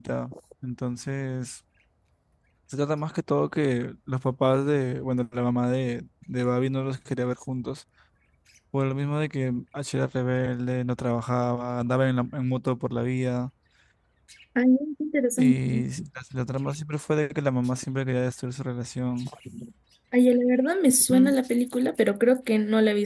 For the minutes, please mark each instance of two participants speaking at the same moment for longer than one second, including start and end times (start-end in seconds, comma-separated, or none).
none